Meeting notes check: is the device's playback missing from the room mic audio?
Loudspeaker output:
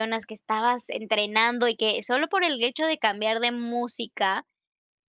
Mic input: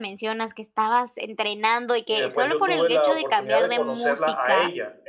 No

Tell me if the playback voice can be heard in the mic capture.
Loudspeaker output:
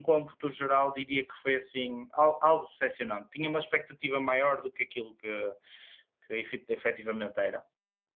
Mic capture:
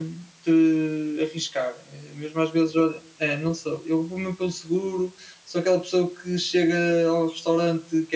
No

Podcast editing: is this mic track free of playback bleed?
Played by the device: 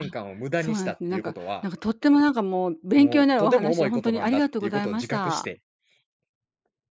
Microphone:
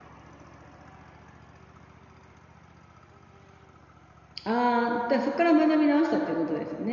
Yes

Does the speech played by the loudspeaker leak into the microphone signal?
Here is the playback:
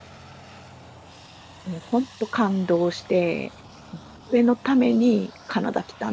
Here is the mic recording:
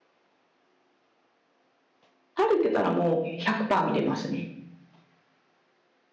No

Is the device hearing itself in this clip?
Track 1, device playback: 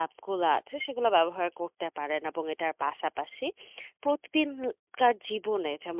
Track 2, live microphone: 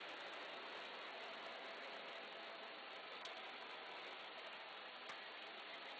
No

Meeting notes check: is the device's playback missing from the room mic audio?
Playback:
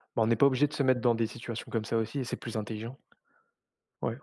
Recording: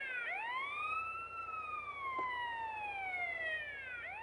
Yes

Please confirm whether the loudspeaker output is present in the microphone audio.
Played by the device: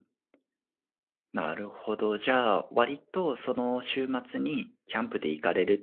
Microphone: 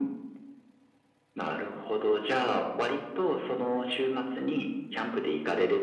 Yes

